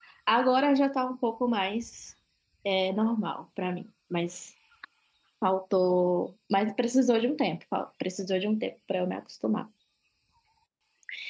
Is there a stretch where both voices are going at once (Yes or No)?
No